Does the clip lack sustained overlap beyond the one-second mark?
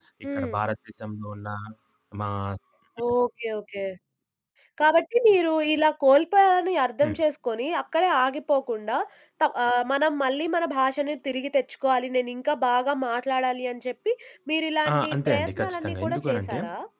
No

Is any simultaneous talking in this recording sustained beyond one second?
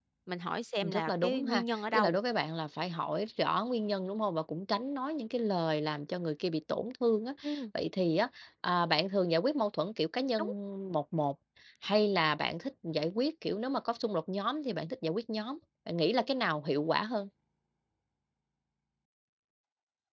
Yes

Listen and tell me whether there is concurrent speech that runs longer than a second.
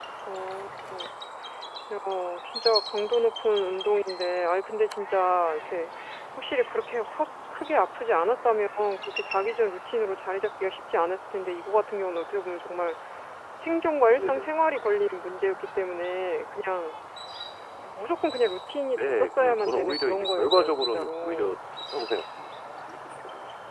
Yes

